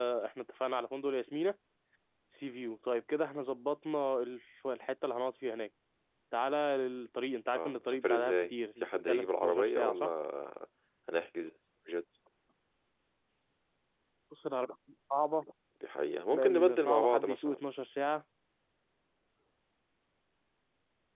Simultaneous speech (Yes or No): Yes